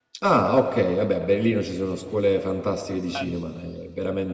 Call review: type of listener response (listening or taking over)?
listening